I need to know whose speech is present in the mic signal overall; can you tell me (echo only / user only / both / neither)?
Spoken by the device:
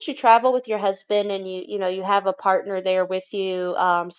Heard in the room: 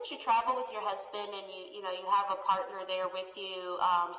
echo only